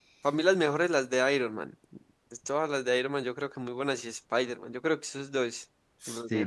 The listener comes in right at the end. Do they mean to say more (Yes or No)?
Yes